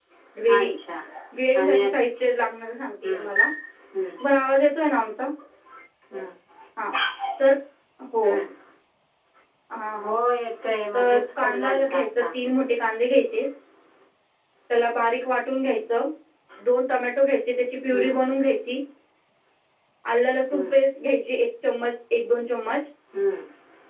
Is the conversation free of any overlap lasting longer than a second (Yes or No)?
No